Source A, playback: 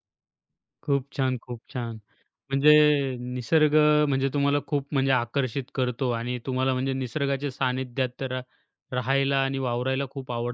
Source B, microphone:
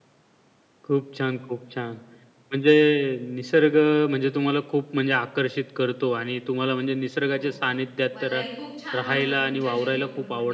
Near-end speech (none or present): present